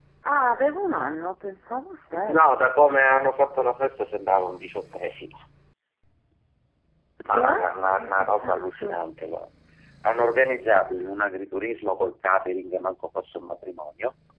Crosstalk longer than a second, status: present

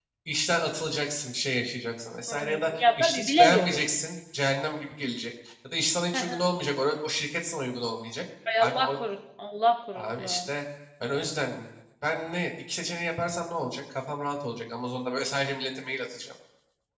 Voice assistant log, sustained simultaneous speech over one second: present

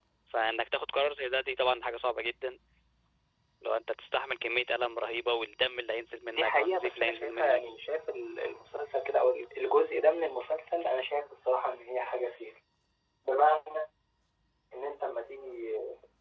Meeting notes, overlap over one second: present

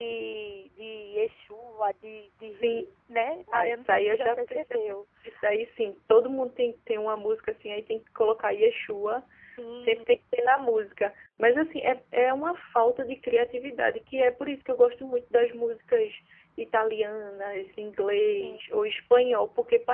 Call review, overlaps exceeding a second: present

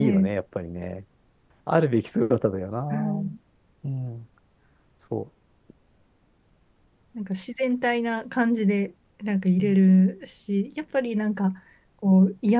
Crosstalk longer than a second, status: none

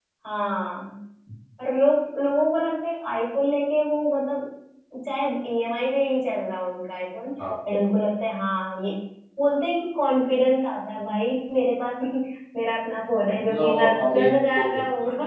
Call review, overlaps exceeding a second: present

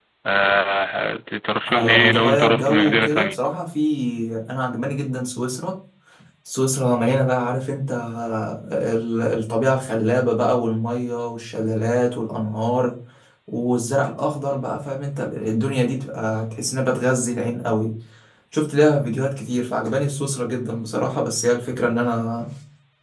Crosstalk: present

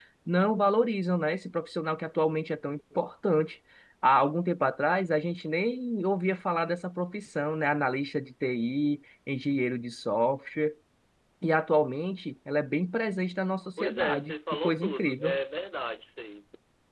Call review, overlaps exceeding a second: present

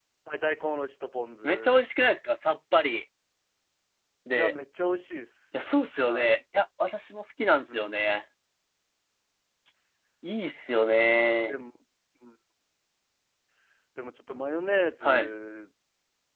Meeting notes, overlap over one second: none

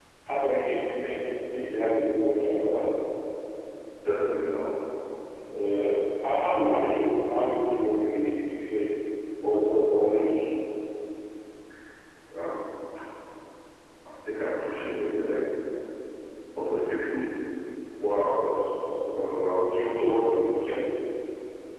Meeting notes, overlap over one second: none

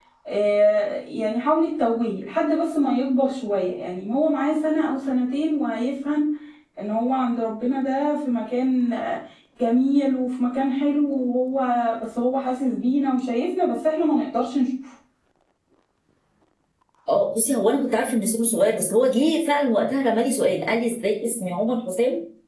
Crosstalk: none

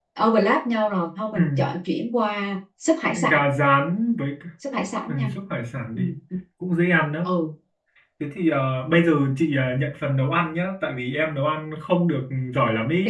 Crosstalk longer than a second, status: none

